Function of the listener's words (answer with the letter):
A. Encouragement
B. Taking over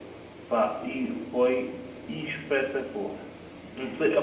A